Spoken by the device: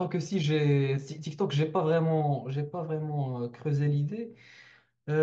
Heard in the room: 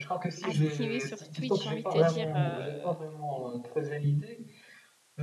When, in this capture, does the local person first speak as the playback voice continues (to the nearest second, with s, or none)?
0 s